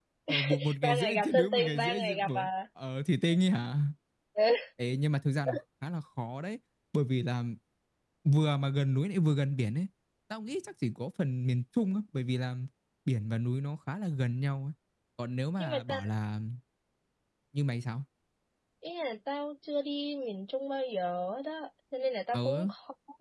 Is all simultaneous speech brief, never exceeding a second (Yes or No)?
No